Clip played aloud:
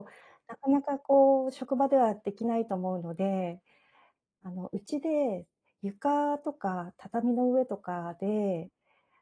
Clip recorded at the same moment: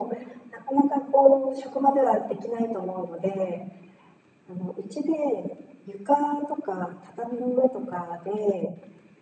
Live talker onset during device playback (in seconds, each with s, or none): none